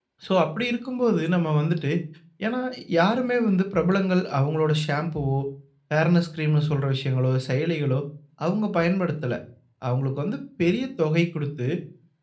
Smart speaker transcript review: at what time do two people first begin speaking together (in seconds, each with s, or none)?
none